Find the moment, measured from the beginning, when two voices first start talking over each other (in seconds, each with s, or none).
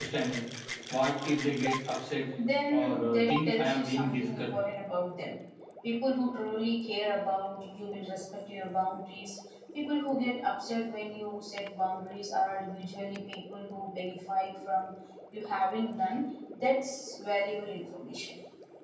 2.7 s